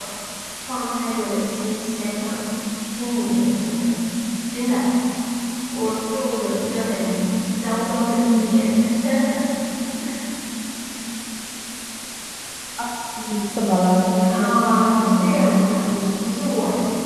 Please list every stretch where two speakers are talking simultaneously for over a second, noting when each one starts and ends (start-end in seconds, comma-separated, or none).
14.3-16.0